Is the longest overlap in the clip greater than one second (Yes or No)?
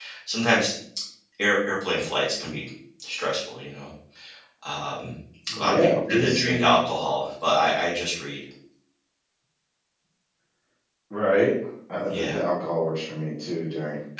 Yes